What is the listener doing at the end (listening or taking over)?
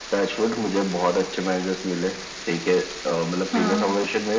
listening